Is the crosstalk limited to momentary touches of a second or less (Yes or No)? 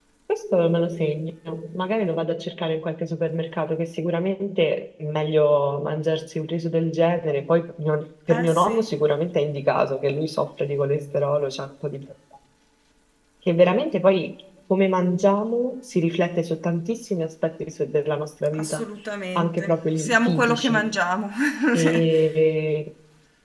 No